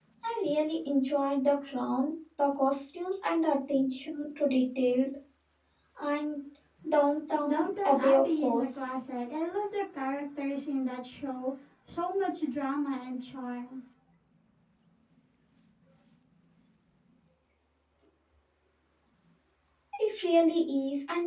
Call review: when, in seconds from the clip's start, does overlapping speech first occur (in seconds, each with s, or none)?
7.4 s